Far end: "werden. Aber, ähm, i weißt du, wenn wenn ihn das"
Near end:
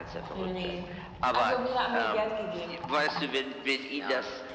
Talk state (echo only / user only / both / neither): both